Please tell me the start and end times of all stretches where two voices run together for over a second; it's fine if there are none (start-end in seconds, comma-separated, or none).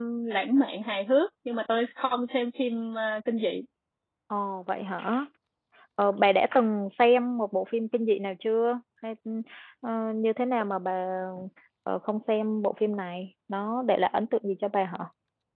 none